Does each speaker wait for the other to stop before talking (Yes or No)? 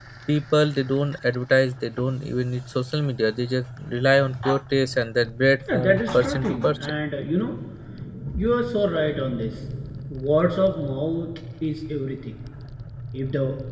No